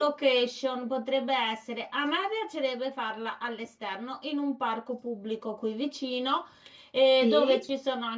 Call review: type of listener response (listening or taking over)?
listening